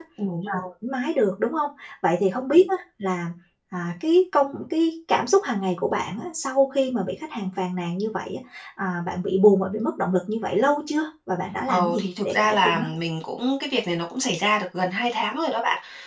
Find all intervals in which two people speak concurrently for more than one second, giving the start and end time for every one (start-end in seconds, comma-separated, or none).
11.6-12.9